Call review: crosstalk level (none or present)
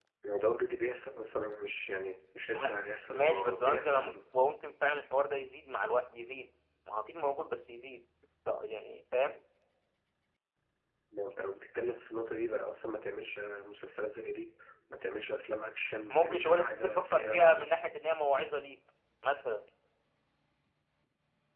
present